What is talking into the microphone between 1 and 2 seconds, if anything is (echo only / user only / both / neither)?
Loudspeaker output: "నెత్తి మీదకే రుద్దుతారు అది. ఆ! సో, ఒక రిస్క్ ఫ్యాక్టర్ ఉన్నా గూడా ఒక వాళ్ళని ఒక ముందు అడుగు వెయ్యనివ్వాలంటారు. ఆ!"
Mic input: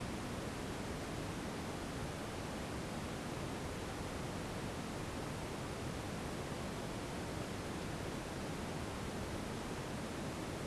neither